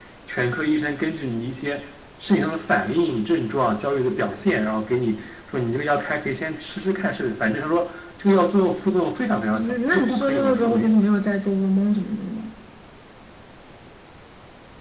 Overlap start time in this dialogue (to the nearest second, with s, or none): 10 s